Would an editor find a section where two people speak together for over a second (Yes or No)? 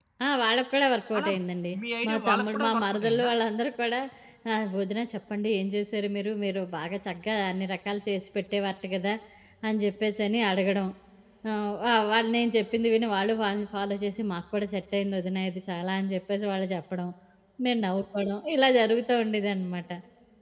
Yes